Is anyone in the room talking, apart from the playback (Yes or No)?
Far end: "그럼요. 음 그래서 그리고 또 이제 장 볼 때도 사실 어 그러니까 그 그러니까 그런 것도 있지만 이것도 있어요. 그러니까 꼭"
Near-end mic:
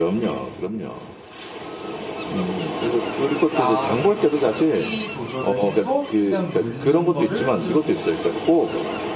Yes